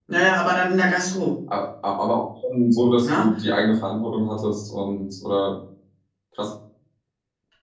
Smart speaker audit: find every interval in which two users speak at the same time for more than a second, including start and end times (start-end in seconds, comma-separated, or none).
none